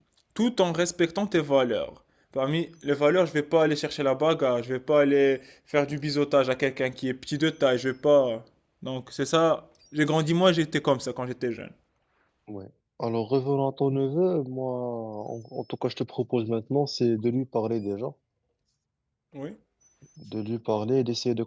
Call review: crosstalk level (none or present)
none